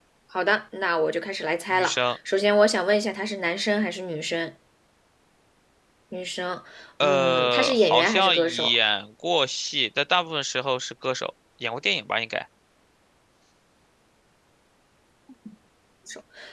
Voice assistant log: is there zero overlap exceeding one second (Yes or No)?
No